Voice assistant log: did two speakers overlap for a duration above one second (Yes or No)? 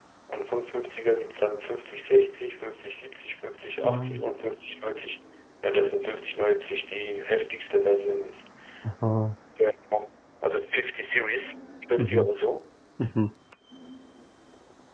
No